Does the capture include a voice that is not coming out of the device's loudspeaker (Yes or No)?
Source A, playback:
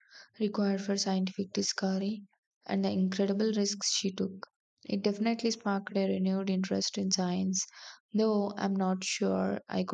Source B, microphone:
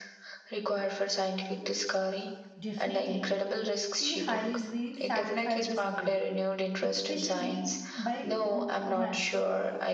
Yes